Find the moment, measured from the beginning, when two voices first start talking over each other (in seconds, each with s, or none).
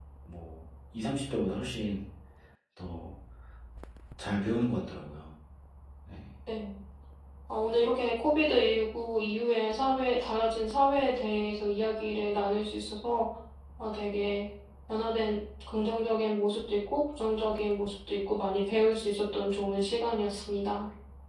none